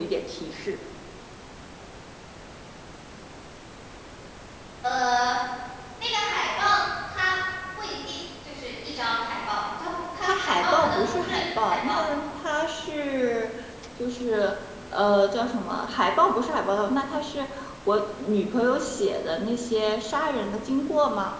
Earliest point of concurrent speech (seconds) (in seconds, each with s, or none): 10.2 s